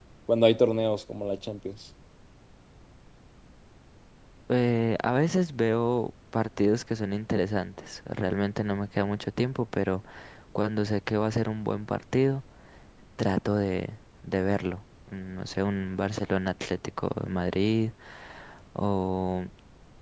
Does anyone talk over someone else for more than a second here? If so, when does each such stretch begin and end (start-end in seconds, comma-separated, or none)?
none